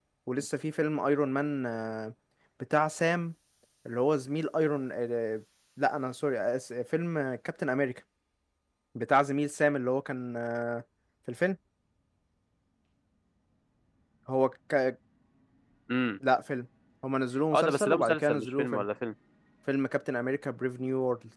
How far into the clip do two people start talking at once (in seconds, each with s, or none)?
17.5 s